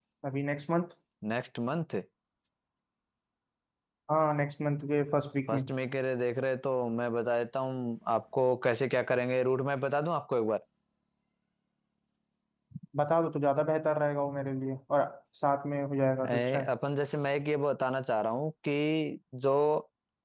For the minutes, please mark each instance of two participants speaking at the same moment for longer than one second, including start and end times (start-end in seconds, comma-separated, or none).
none